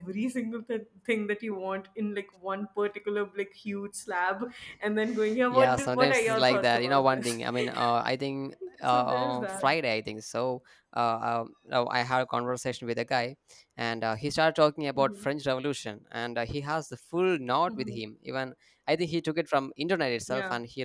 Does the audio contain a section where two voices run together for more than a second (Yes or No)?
Yes